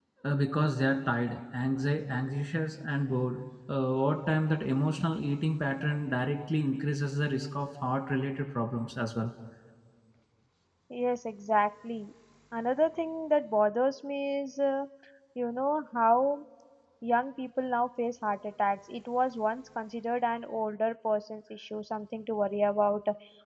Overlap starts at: none

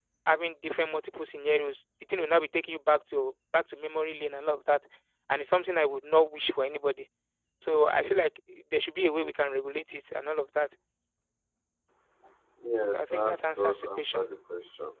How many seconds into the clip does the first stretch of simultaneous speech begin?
13 s

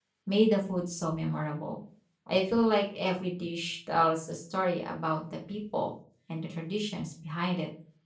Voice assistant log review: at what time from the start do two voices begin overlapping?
none

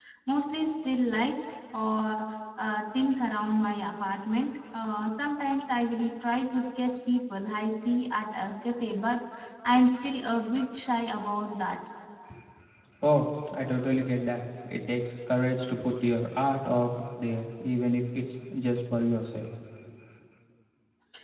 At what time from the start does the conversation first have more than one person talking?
none

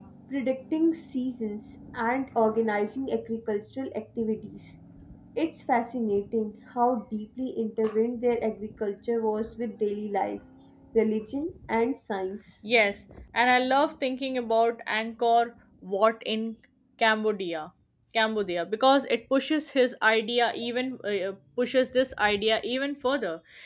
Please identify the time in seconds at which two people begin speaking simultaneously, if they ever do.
none

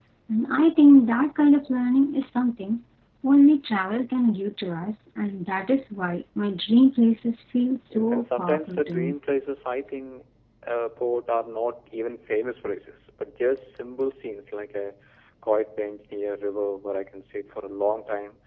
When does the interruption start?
8 s

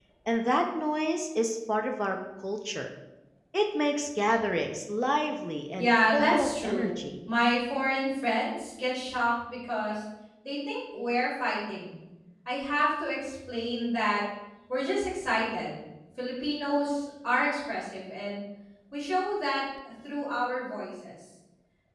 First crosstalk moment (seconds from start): 6 s

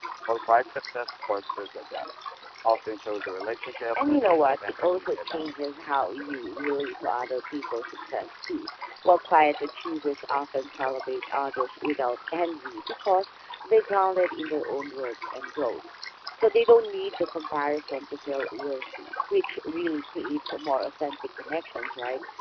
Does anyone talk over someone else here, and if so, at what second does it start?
4 s

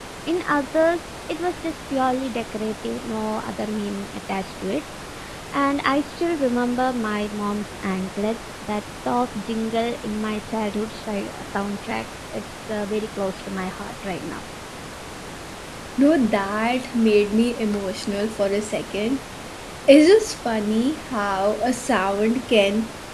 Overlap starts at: none

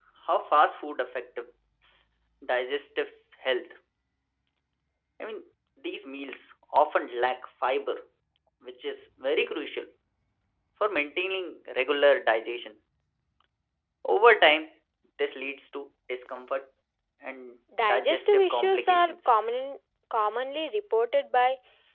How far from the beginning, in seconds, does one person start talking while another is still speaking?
18 s

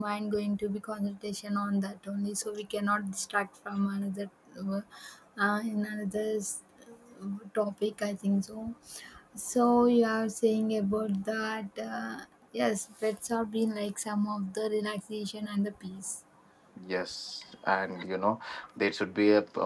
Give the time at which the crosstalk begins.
none

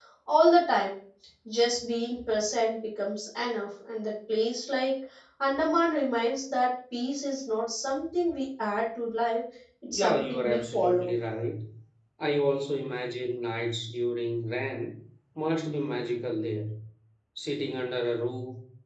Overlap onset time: 10 s

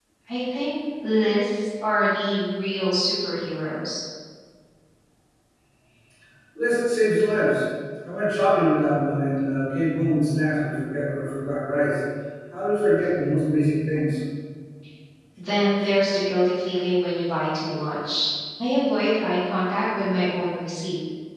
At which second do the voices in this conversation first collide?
none

